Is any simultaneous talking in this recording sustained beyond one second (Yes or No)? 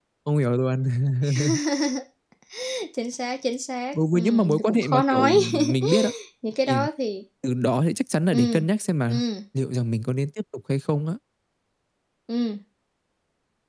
Yes